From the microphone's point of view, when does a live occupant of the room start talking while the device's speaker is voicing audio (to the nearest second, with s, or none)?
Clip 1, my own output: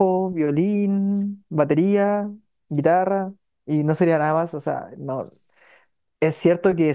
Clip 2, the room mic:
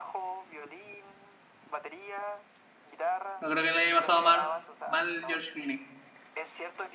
3 s